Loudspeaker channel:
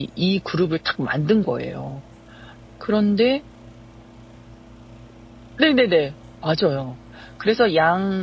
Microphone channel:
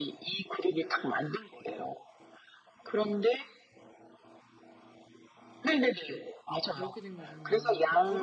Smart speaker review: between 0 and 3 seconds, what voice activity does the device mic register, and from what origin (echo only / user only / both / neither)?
echo only